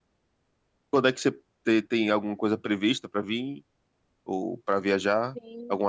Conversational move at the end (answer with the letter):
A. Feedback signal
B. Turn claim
B